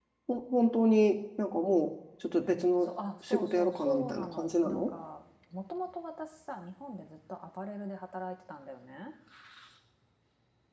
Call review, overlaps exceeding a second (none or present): present